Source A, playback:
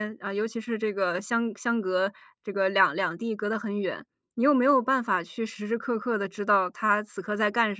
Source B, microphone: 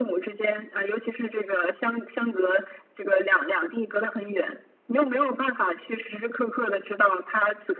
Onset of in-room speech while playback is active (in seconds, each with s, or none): none